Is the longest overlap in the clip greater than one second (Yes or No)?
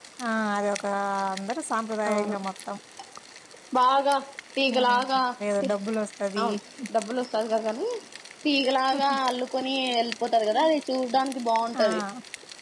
No